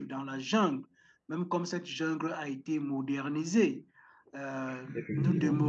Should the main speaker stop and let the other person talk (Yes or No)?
No